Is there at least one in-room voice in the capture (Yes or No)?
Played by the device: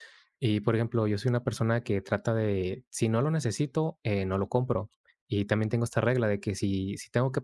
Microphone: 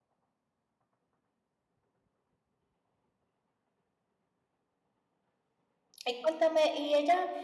Yes